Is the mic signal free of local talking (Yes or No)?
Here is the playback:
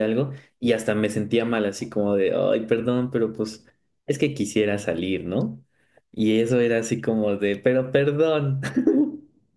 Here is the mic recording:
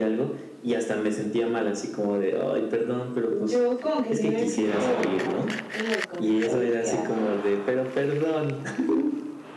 No